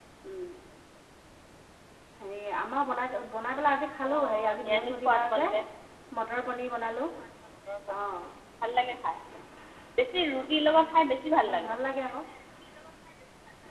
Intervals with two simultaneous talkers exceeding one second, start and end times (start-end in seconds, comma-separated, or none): 4.0-5.5